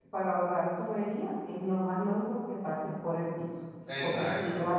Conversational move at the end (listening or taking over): listening